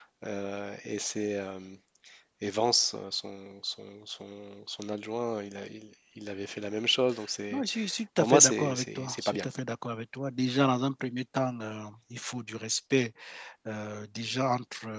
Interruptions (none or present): present